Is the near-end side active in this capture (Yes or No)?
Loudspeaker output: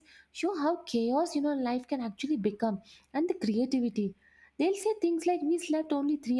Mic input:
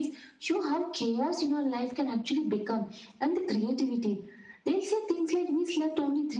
No